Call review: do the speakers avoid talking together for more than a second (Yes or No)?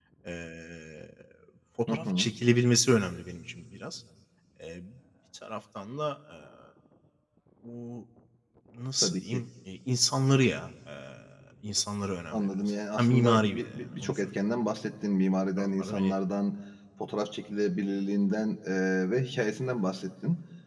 No